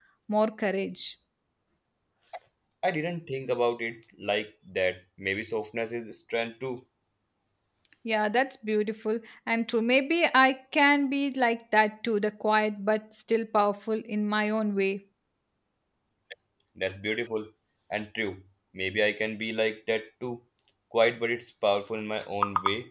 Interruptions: none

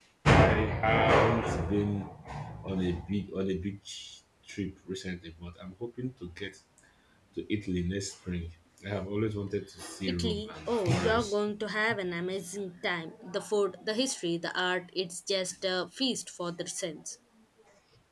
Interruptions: present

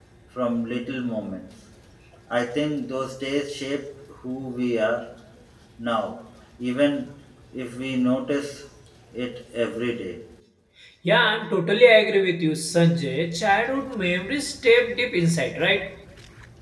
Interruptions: none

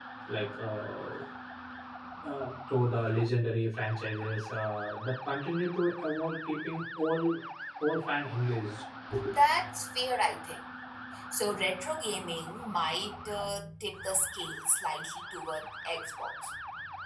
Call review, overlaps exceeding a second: none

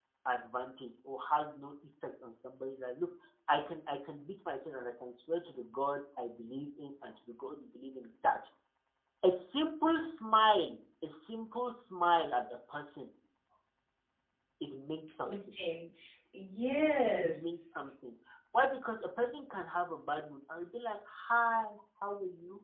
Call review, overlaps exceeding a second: none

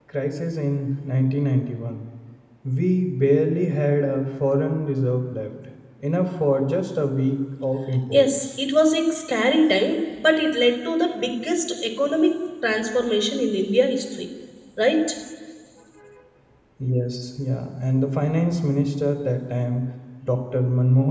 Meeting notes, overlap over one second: none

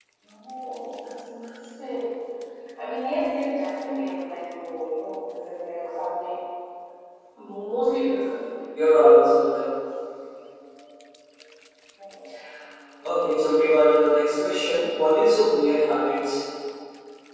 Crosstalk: none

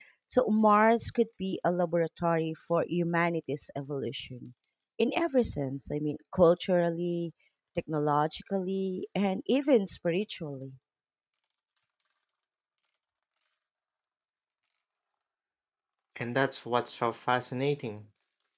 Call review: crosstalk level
none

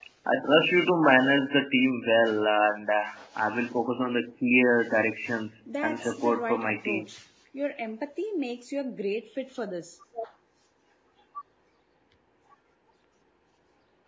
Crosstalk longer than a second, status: present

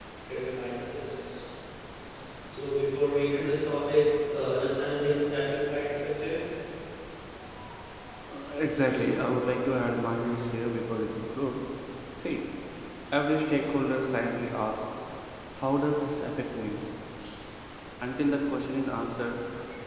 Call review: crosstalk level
none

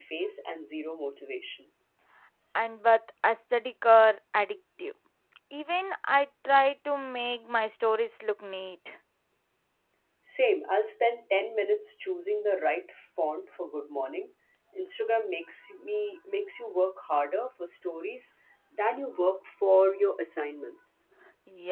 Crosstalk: none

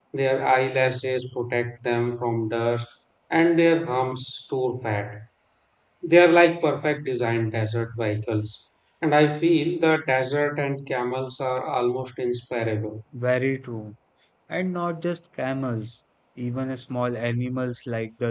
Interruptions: none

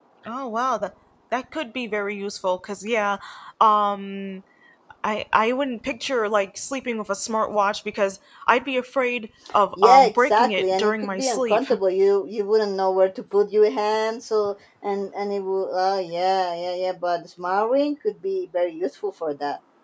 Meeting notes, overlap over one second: present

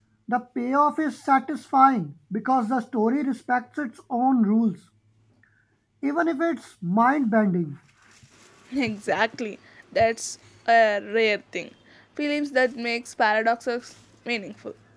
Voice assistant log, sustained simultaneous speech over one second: none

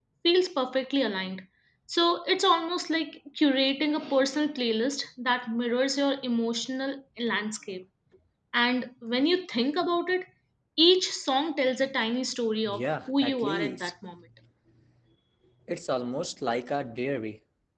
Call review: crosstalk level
present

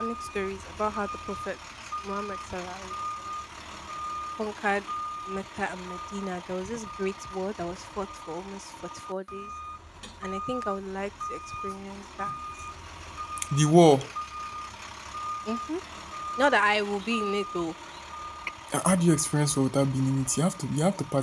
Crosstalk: none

